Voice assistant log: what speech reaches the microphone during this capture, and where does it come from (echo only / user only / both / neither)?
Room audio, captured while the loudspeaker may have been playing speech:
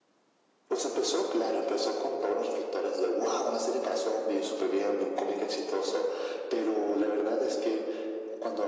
echo only